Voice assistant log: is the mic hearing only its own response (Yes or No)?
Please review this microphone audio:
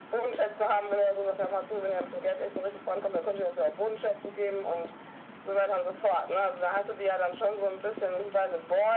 Yes